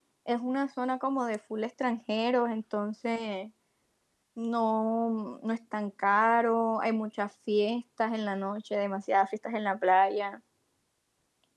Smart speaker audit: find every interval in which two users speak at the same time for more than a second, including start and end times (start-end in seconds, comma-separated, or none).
none